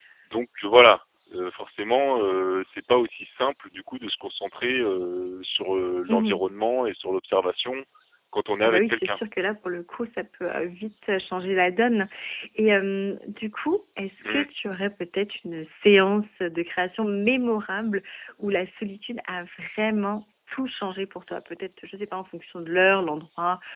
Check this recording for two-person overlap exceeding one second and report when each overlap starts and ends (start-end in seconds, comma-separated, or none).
none